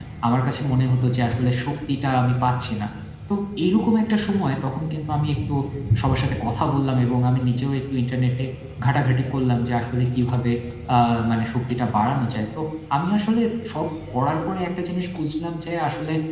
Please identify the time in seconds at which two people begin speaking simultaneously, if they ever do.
none

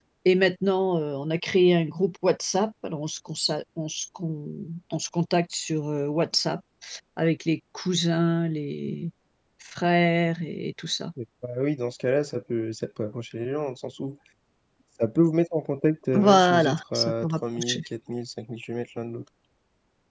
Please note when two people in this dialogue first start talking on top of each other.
16.1 s

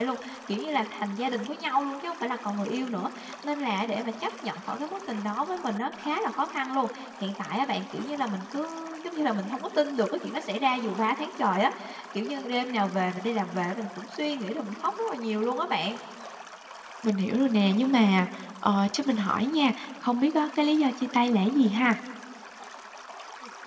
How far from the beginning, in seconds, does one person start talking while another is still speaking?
none

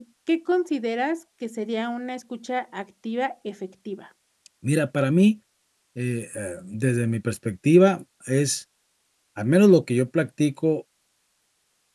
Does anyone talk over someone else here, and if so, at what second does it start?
none

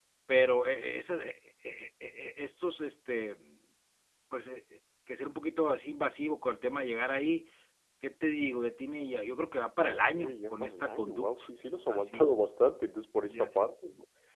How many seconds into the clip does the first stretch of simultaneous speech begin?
9.8 s

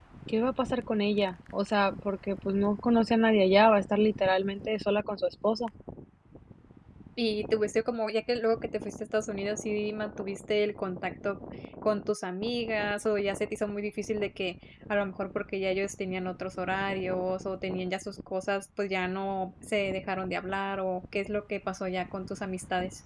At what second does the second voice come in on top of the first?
none

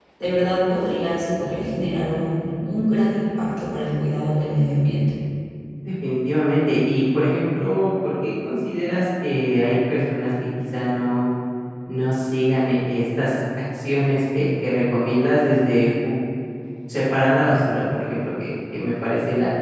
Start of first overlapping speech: none

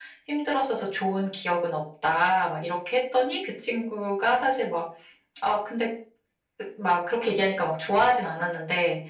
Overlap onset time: none

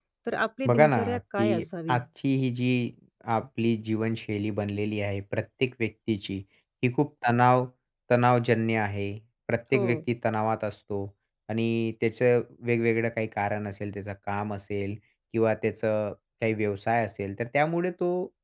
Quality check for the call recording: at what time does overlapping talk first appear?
0.7 s

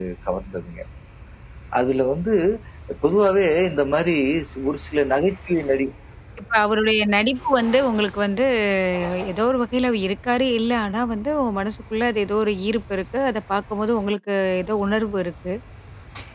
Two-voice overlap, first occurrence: none

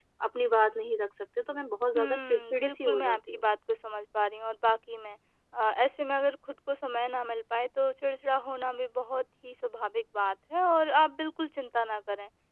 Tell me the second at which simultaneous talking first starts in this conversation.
1.9 s

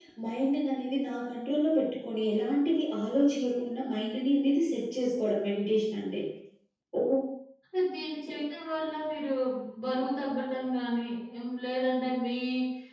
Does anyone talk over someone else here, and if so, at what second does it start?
none

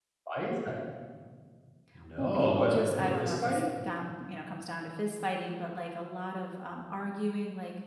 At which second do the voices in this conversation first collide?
2.2 s

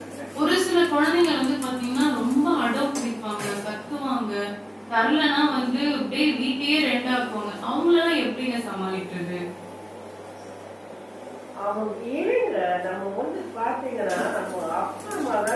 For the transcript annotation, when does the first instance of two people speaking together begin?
none

